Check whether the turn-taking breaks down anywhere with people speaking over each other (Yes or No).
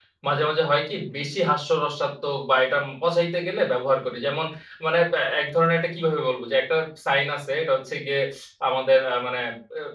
No